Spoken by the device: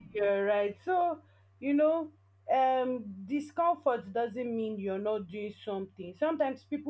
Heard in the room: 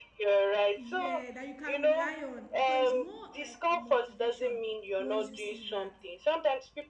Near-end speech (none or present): present